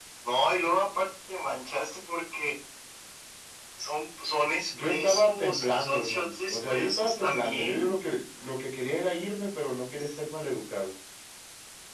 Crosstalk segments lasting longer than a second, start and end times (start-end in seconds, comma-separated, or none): 4.8-7.9